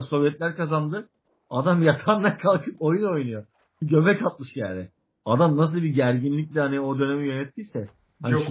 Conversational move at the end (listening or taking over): taking over